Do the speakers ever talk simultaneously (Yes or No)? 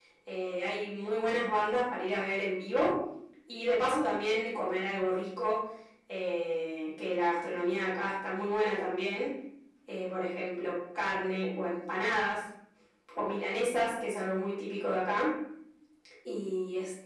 No